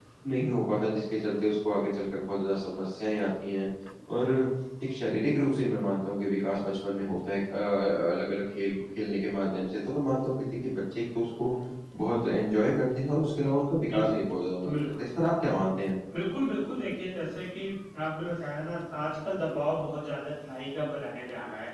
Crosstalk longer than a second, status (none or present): none